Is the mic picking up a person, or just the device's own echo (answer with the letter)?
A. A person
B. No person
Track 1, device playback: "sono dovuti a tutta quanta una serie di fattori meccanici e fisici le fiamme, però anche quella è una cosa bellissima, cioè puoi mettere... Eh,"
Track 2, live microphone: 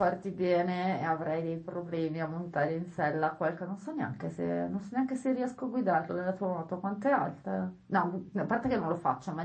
A